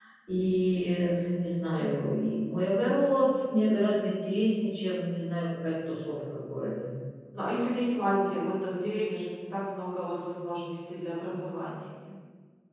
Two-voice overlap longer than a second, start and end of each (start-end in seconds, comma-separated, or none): none